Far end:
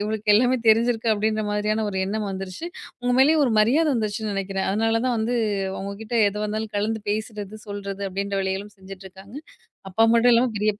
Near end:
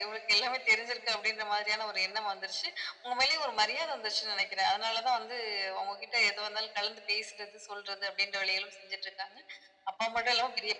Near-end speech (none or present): none